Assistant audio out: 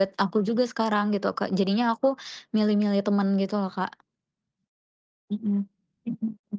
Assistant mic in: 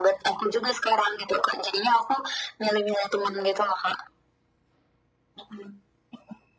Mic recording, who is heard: echo only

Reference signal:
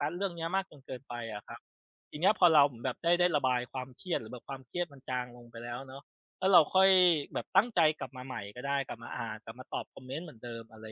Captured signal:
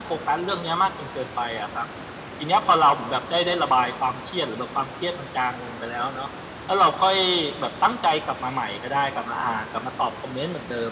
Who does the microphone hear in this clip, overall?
echo only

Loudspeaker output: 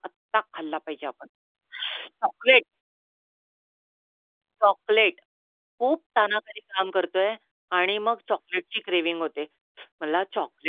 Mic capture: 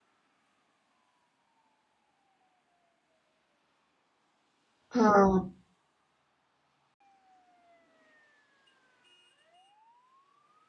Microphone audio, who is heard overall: user only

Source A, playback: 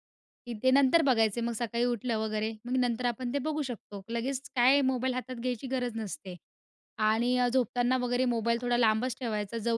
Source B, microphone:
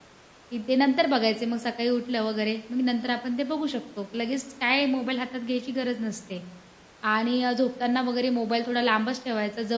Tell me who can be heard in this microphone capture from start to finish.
echo only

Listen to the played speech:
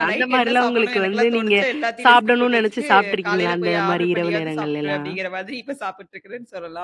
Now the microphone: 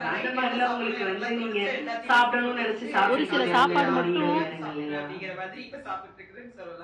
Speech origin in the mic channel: both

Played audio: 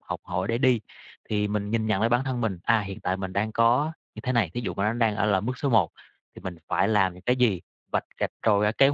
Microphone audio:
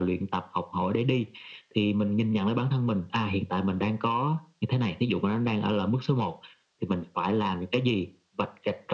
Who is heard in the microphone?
echo only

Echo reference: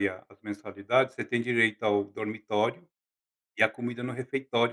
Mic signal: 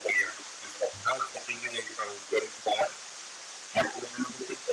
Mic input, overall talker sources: echo only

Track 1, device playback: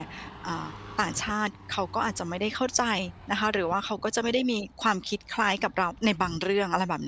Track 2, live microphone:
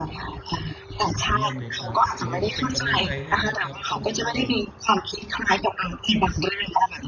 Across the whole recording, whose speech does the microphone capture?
both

